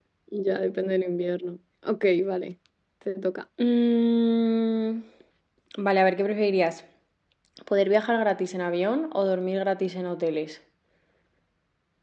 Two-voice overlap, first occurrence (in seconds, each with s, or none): none